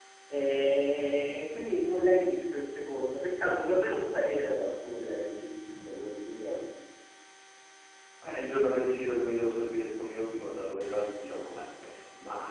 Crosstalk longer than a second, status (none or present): none